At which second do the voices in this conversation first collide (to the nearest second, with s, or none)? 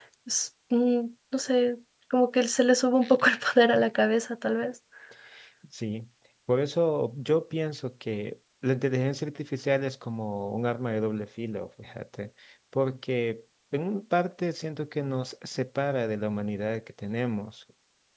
none